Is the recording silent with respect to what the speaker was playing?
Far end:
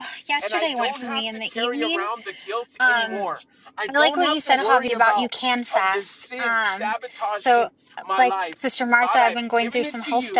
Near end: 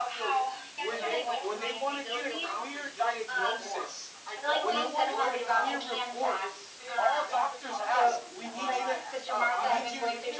No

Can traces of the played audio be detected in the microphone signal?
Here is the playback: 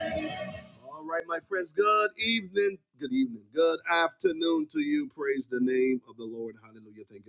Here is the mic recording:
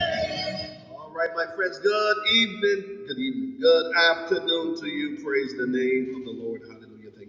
Yes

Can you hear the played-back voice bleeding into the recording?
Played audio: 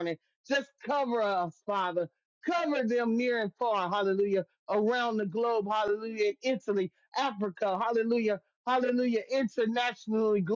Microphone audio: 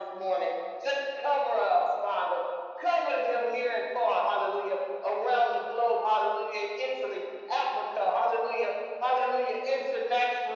Yes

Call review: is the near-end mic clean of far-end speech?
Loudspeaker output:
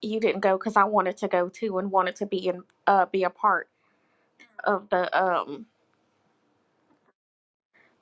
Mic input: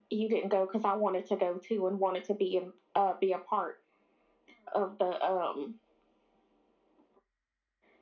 No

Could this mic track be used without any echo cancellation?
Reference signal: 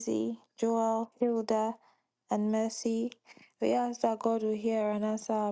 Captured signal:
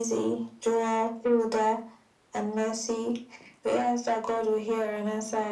No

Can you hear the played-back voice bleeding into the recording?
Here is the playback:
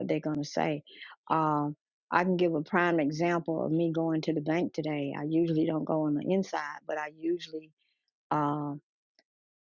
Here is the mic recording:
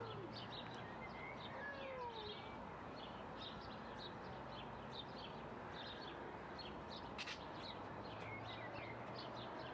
No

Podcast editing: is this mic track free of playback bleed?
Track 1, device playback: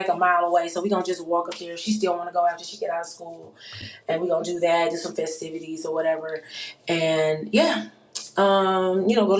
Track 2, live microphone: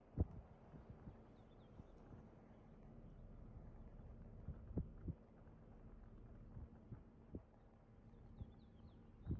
Yes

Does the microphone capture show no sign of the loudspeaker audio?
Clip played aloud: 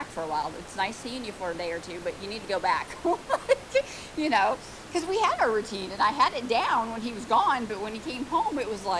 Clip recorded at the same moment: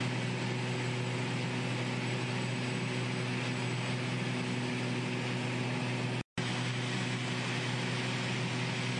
Yes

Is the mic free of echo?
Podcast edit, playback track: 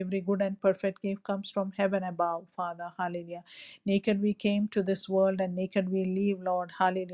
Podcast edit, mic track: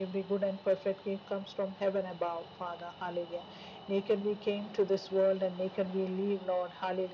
No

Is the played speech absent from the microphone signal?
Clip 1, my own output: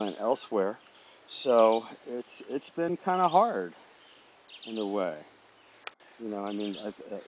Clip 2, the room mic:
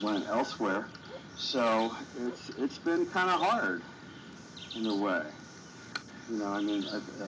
No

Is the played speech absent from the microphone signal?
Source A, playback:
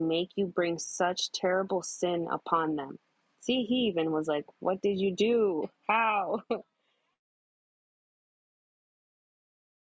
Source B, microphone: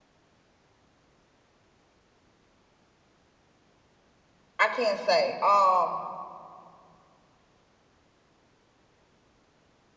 Yes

